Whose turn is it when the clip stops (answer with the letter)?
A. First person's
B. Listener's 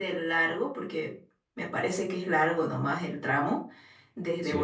A